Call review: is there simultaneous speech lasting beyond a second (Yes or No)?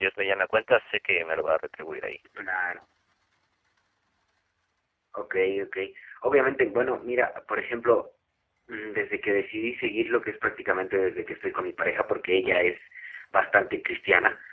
No